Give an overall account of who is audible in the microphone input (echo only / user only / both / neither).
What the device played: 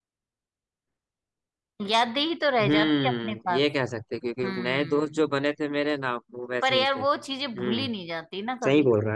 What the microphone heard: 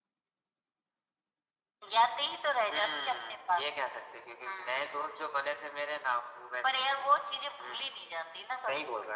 echo only